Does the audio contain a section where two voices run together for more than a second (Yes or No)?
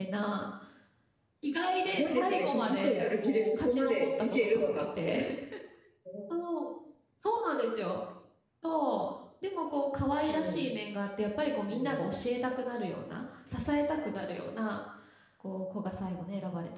Yes